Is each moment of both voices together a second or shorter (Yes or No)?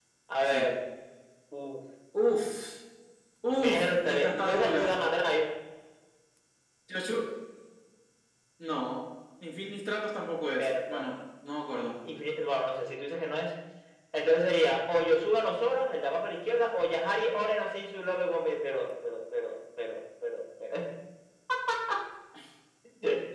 No